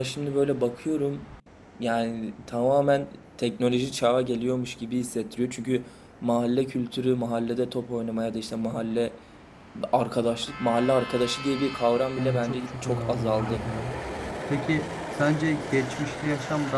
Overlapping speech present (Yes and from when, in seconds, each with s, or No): Yes, from 12.2 s